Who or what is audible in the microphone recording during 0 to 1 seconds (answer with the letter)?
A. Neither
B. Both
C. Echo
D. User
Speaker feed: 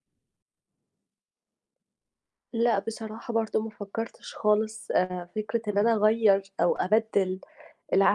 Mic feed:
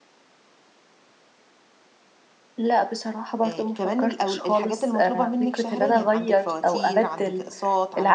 A